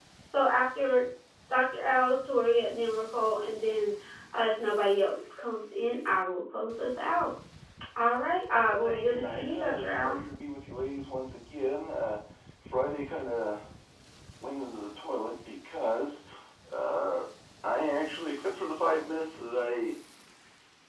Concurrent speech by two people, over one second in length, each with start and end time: 8.7-10.2

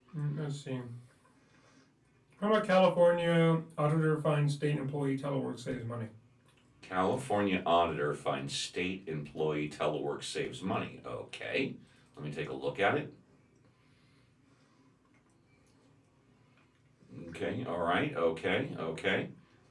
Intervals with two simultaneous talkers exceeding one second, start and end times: none

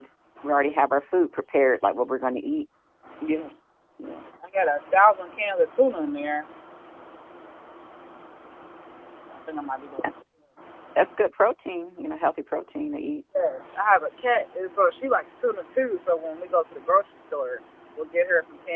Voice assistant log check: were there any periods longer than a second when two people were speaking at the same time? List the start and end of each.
none

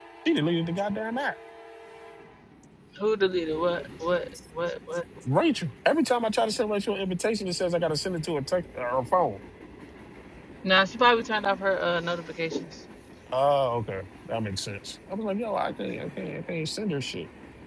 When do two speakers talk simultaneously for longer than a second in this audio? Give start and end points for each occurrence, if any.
none

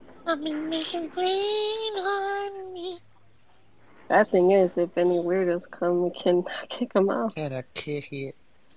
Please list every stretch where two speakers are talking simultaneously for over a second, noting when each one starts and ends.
none

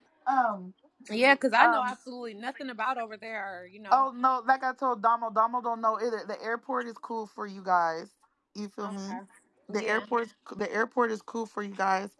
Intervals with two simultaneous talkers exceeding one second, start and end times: none

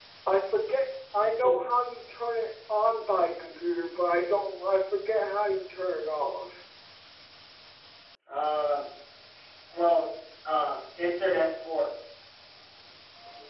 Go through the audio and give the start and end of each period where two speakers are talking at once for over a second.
none

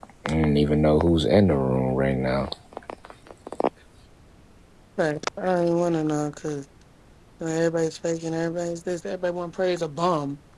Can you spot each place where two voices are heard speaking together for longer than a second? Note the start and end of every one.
none

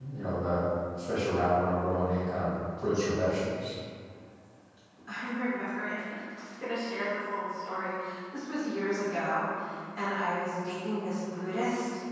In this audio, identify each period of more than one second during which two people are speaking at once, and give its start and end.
none

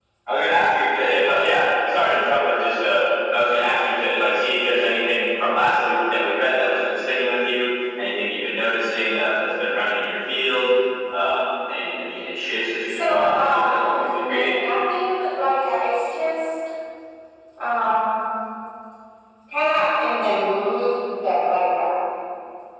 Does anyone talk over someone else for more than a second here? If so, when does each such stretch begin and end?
12.9-14.6

